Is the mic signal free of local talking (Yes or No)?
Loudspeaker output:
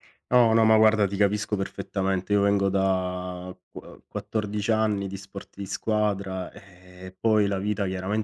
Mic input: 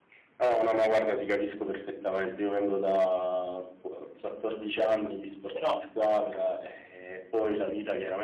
No